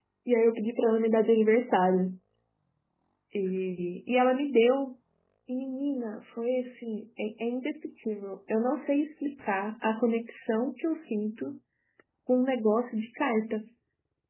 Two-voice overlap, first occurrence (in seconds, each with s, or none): none